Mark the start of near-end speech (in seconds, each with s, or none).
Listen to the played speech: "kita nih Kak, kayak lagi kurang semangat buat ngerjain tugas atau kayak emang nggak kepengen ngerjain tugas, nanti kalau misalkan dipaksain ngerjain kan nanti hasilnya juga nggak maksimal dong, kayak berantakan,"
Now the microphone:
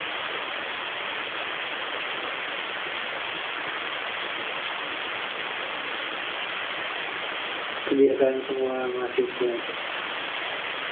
7.9 s